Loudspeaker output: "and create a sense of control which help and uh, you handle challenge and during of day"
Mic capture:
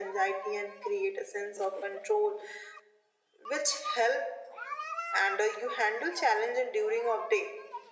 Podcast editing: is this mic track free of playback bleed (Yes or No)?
No